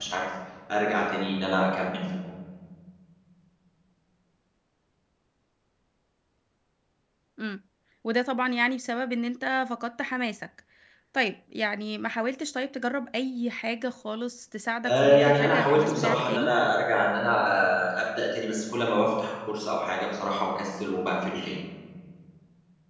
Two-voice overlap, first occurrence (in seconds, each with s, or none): 14.8 s